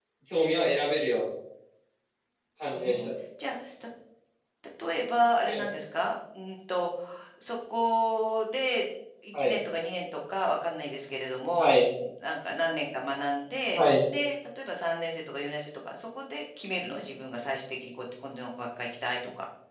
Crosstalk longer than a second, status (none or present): none